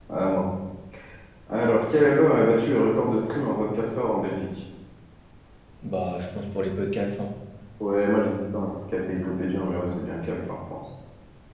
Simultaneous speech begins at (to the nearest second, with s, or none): none